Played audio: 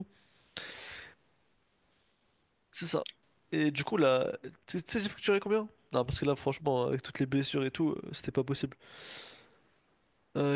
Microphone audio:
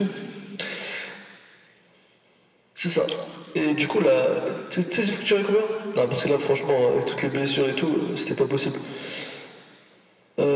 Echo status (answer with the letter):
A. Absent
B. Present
B